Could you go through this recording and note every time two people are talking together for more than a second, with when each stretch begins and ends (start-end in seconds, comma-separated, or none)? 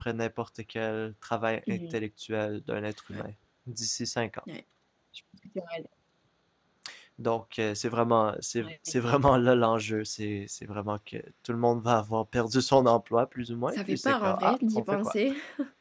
13.7-15.2